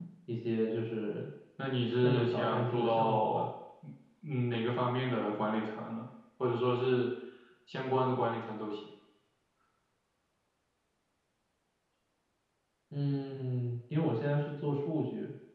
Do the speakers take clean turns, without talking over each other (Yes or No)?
No